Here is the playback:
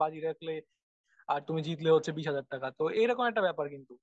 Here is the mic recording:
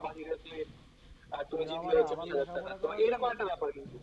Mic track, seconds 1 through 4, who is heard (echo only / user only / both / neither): both